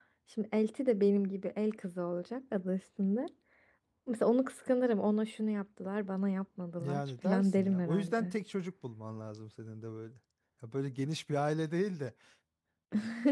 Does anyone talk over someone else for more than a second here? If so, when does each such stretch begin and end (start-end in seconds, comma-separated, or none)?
6.8-8.3